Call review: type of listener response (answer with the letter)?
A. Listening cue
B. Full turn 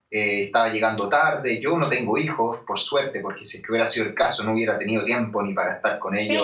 B